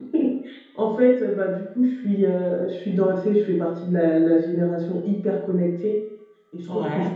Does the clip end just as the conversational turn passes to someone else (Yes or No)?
No